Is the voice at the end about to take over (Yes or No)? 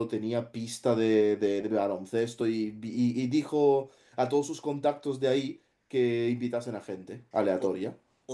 Yes